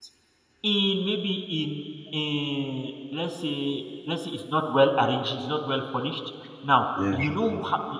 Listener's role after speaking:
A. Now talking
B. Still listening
B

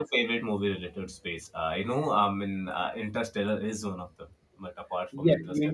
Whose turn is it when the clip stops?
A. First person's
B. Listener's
B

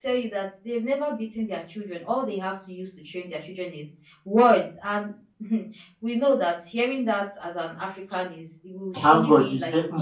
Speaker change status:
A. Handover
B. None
A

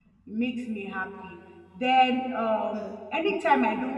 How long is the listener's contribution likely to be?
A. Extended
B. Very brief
B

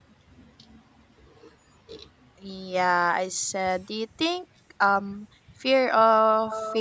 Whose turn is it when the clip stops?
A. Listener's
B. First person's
B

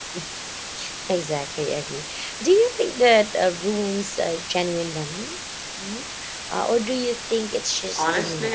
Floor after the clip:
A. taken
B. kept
A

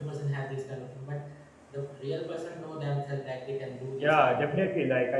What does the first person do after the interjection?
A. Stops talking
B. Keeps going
A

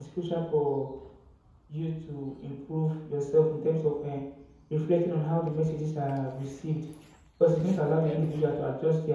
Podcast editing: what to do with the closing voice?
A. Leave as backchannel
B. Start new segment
A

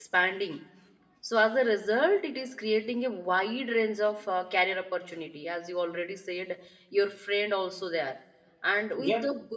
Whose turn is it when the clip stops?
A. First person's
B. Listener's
A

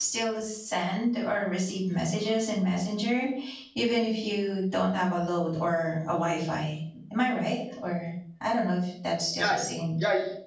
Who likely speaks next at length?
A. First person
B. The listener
B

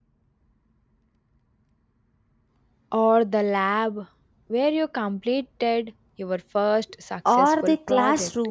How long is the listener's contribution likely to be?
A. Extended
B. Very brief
A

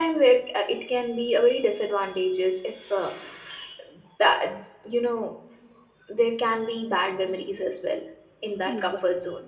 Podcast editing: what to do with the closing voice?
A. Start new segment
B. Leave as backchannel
B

